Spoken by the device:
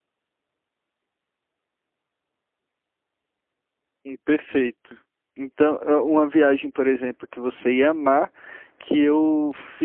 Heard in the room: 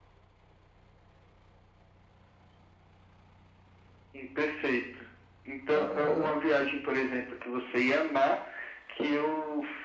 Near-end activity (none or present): present